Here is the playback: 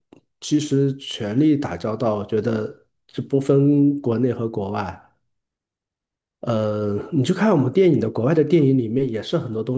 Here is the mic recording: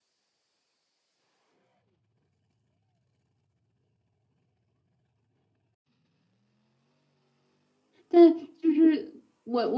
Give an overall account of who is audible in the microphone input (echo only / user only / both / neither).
user only